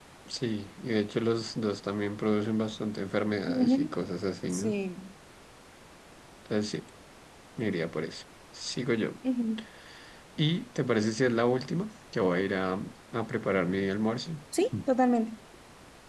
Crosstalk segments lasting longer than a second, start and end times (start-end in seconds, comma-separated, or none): none